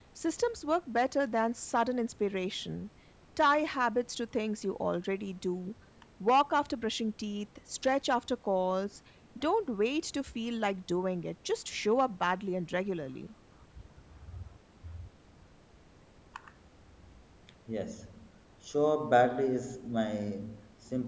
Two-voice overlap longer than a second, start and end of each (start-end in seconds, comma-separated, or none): none